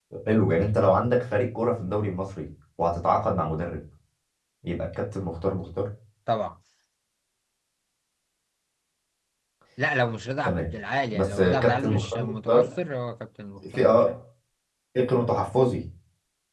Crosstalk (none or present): present